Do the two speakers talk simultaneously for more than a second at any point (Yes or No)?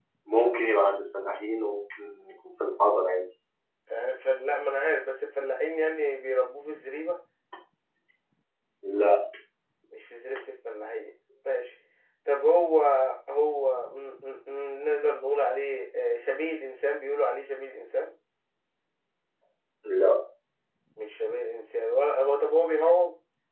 No